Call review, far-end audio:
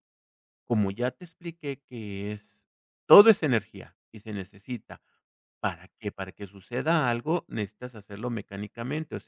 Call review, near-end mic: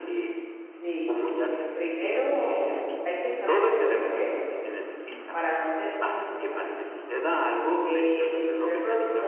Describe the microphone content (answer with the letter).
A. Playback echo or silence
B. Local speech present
B